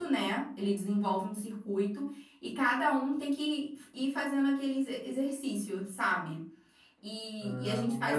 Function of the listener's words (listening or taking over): taking over